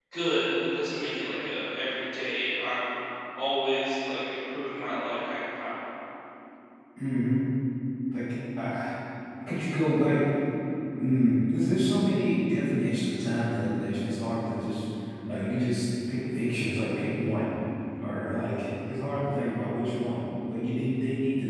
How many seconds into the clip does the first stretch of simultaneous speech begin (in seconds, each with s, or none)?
none